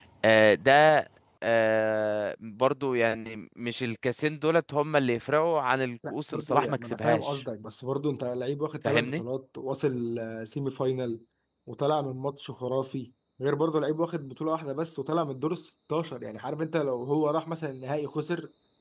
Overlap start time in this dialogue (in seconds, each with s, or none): 6.1 s